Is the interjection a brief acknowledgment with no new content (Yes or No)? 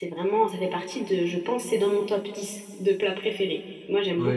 No